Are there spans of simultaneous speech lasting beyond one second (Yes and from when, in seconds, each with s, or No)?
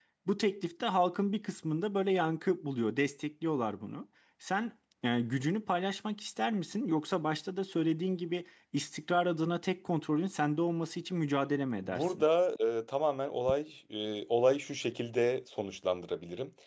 No